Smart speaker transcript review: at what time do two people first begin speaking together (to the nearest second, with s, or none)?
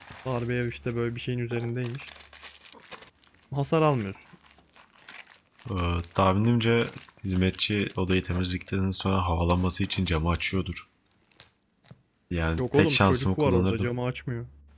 13 s